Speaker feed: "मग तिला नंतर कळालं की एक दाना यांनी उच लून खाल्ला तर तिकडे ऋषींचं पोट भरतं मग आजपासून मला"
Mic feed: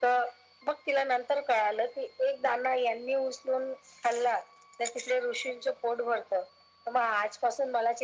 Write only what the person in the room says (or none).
none